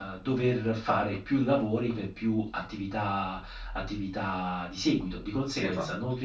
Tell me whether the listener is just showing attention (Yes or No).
Yes